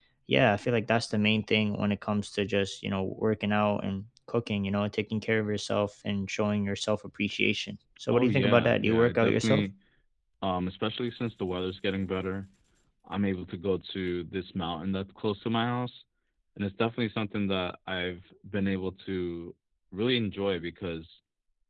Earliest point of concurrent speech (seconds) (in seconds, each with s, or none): 8.1 s